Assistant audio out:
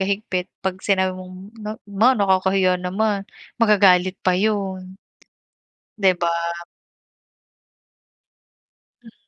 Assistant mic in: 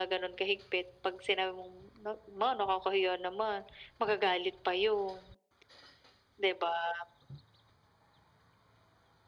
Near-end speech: none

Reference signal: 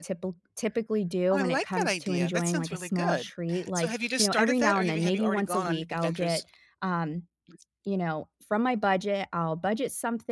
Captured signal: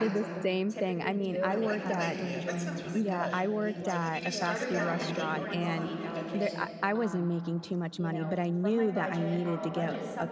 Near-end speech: present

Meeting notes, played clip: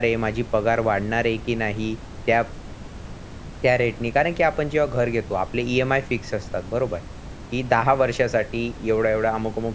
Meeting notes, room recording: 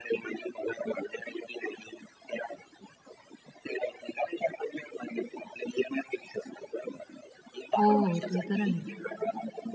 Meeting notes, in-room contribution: present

